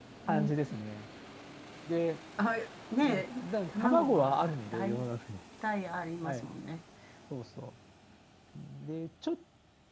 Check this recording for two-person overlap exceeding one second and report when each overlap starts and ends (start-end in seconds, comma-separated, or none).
3.7-5.1